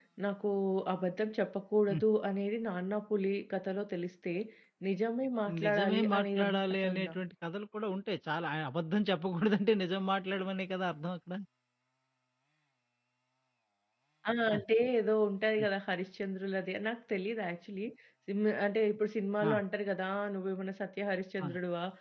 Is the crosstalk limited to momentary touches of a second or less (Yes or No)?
No